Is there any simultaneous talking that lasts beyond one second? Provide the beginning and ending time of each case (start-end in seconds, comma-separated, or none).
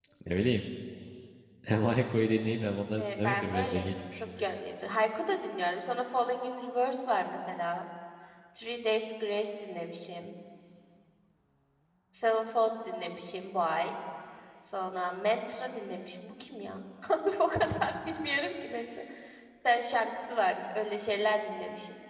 3.0-4.2